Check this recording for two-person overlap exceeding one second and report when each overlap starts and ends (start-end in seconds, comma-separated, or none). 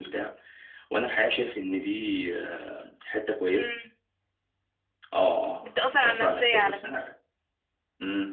5.6-6.9